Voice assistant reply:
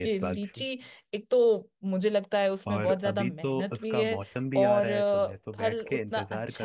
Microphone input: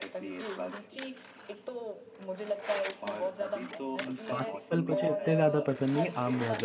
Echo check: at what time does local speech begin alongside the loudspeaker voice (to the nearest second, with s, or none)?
4 s